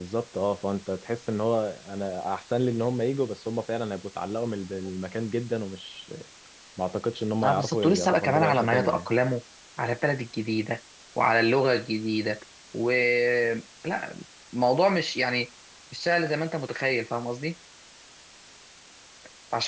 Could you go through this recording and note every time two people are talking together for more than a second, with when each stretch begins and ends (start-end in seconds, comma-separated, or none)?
7.4-9.1